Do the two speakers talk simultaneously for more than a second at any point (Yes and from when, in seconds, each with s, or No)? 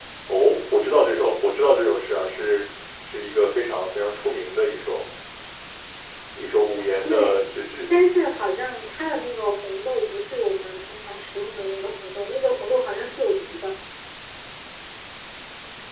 No